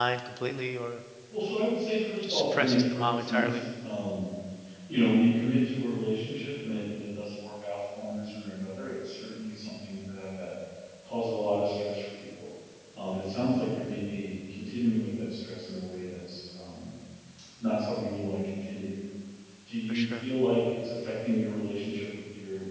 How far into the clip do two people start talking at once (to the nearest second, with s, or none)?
2 s